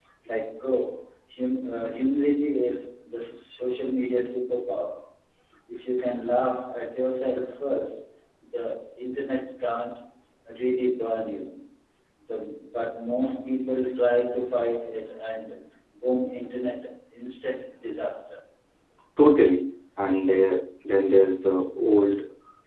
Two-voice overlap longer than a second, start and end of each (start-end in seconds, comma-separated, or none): none